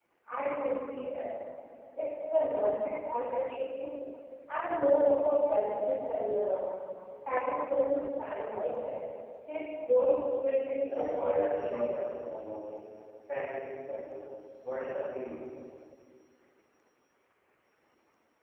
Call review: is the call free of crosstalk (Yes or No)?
No